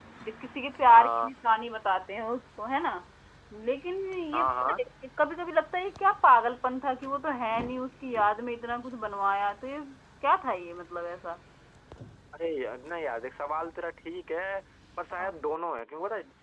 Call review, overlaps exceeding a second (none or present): none